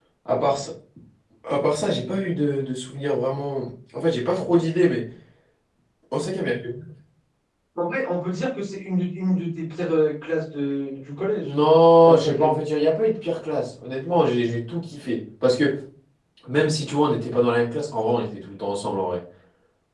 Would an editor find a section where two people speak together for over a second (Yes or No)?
No